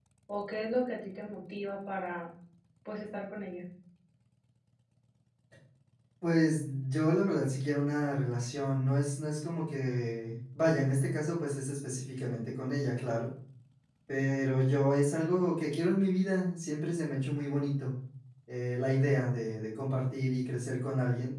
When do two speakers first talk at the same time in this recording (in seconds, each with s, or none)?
none